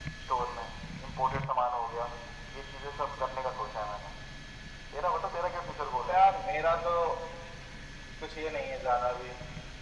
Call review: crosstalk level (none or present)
none